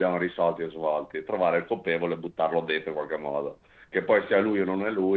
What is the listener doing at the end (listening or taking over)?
listening